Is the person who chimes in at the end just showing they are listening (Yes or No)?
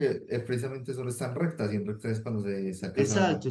No